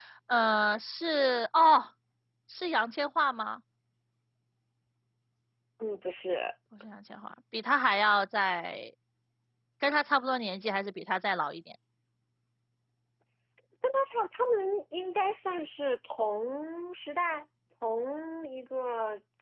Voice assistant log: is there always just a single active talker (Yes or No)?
Yes